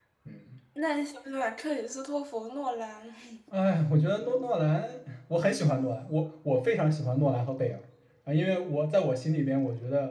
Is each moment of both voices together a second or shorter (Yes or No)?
Yes